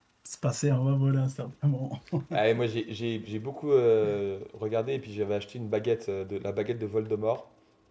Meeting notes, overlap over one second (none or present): none